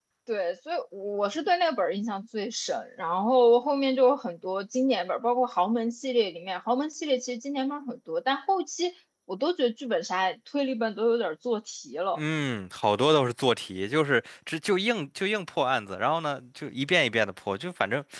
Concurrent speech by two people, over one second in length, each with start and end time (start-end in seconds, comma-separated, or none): none